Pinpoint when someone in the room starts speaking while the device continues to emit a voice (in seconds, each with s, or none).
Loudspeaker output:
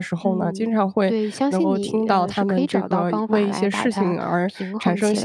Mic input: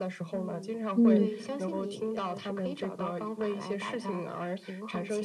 1.0 s